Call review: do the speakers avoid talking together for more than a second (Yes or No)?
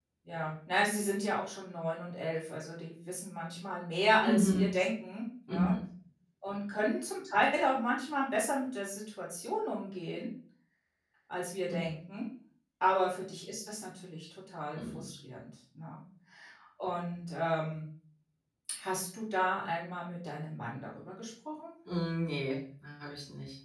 Yes